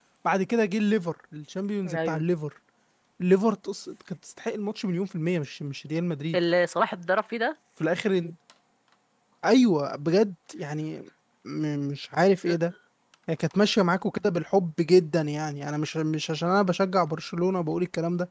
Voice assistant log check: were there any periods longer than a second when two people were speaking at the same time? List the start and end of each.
none

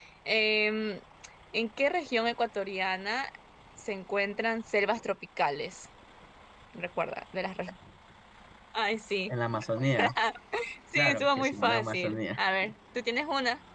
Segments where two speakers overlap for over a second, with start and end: 10.9-12.2

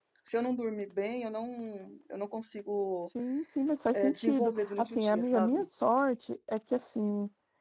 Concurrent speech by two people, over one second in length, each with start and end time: 3.9-5.6

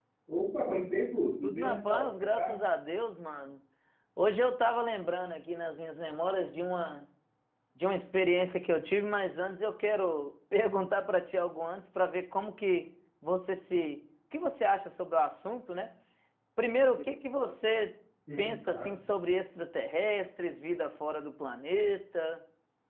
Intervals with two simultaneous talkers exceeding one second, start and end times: 1.4-2.6

